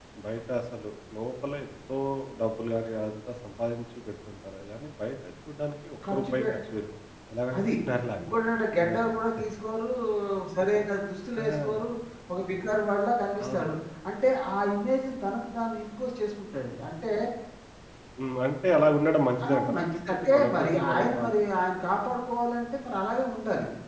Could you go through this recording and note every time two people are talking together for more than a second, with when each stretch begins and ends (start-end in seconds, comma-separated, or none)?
19.4-21.3